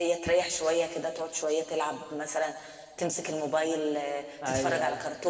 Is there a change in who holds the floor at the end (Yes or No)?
Yes